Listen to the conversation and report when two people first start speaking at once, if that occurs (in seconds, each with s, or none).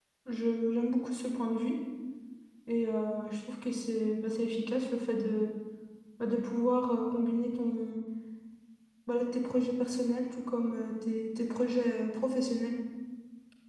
none